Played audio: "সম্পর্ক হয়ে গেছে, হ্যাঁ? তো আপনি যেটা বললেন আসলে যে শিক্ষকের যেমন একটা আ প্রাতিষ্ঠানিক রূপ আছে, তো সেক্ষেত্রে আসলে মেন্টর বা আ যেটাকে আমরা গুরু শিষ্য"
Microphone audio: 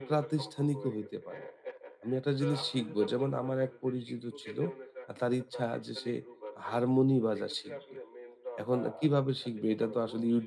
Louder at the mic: user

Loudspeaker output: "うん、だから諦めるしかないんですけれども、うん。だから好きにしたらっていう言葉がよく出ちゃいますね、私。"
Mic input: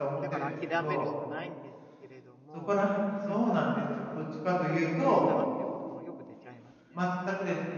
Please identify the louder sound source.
user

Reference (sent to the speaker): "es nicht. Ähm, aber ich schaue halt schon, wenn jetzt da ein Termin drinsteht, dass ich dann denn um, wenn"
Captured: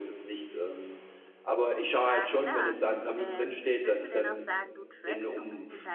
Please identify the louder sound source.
echo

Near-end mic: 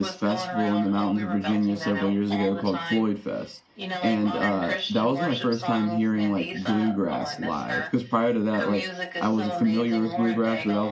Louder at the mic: user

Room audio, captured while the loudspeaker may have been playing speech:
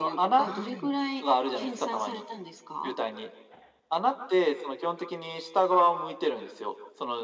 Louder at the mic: echo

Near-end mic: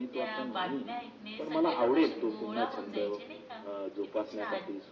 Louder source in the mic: echo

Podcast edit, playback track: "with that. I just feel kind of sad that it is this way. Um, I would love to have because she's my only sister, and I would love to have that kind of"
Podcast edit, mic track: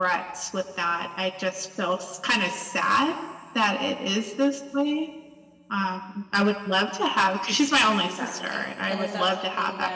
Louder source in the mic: echo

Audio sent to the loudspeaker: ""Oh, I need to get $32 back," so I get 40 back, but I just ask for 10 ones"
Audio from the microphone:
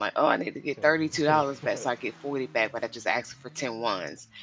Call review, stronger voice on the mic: echo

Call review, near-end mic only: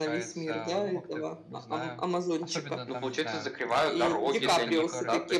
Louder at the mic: echo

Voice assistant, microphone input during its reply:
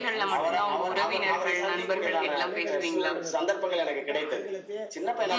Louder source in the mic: echo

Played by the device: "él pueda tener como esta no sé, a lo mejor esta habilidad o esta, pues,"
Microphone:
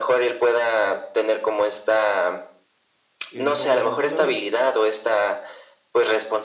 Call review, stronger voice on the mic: echo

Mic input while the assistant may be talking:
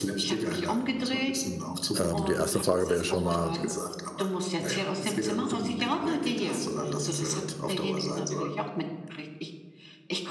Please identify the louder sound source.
user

